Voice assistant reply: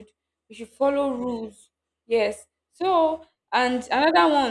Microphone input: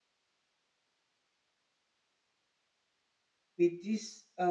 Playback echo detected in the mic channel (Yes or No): No